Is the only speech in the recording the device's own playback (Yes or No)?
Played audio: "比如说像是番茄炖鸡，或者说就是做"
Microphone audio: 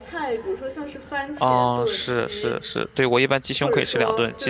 No